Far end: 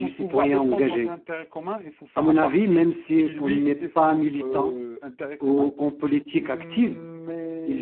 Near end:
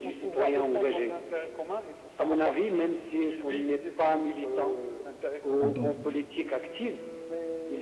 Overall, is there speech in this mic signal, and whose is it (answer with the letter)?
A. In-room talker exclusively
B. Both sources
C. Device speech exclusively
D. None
B